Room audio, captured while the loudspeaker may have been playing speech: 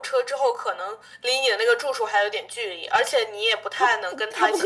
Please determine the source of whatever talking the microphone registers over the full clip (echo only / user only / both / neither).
both